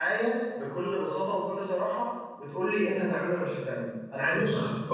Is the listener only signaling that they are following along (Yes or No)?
No